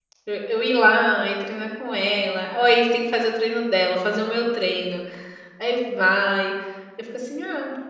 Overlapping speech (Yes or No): No